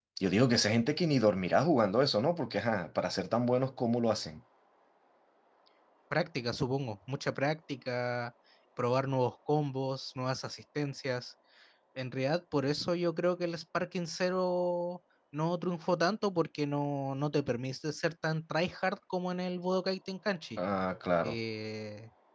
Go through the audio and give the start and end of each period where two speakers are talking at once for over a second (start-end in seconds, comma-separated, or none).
none